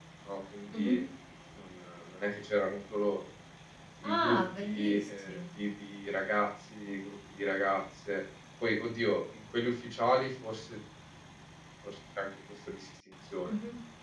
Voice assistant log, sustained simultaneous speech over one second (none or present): present